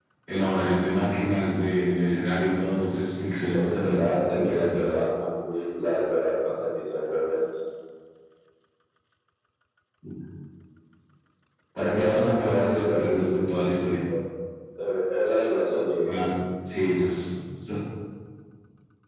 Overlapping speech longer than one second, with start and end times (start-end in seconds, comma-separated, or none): 3.5-4.9, 11.8-13.0